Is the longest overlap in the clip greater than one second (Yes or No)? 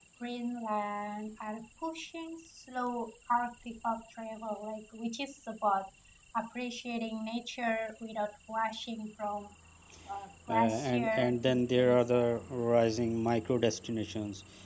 Yes